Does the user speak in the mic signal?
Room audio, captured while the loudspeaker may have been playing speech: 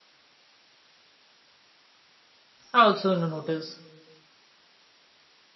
Yes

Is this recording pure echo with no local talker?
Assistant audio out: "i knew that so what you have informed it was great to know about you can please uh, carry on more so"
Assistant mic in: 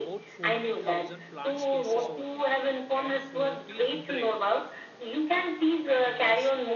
No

